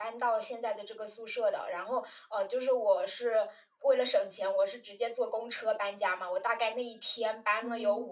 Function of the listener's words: listening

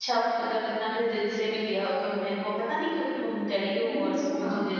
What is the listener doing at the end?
taking over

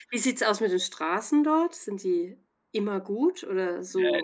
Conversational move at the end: taking over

